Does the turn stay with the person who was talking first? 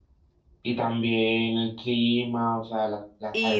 No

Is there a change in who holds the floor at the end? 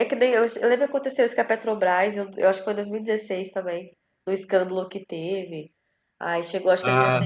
No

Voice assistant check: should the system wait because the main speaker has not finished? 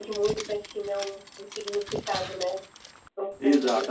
No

